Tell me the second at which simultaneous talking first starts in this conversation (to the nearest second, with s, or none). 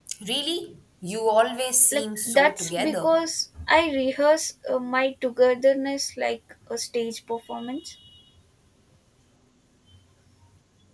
2 s